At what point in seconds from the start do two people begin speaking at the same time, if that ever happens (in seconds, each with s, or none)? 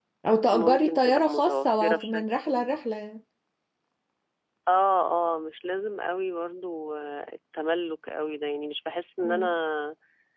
0.5 s